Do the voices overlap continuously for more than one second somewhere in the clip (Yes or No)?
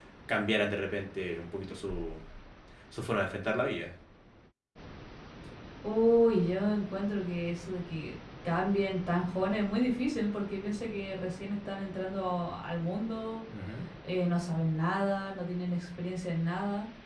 No